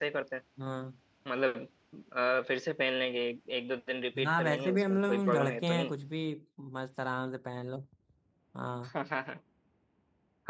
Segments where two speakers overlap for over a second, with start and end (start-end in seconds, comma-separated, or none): 4.2-5.7